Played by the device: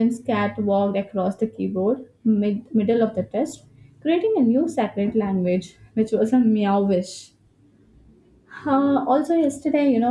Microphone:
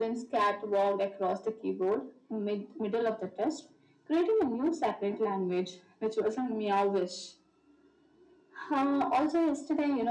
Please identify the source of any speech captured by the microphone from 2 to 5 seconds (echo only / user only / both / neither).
echo only